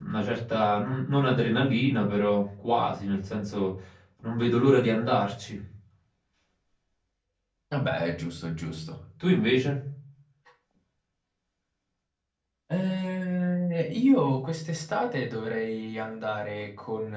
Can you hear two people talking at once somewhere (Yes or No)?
No